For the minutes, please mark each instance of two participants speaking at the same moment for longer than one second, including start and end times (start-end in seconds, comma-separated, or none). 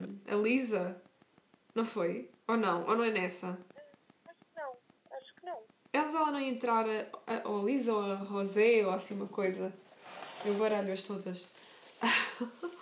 none